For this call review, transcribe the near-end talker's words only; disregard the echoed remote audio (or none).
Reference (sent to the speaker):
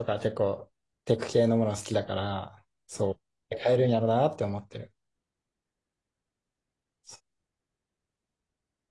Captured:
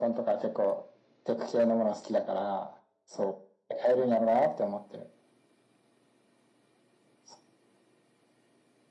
none